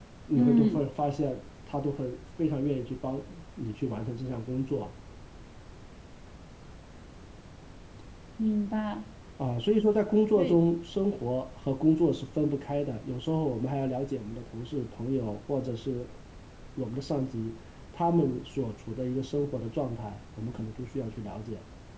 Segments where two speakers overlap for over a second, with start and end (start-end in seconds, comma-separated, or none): none